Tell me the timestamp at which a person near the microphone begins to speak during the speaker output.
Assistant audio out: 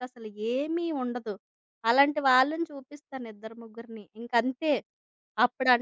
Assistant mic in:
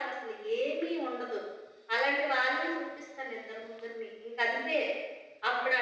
none

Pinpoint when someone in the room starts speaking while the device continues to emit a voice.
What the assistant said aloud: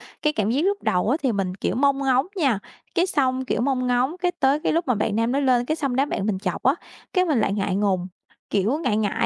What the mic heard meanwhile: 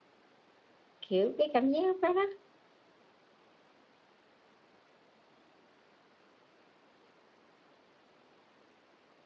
1.1 s

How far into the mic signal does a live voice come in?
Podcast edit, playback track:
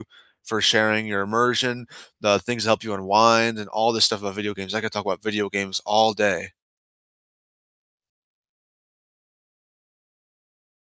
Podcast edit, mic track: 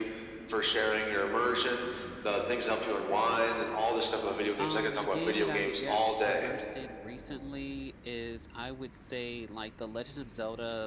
4.5 s

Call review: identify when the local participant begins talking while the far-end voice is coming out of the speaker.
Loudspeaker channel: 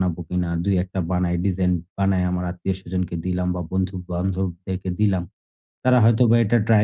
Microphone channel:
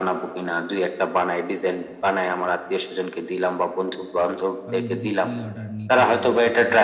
4.6 s

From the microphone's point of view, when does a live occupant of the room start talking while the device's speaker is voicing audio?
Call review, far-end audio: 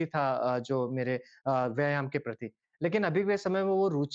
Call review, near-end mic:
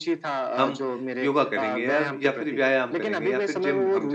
0.5 s

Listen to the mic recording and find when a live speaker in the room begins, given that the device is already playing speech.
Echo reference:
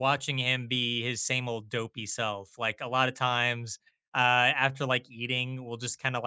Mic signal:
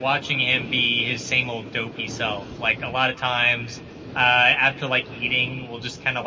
none

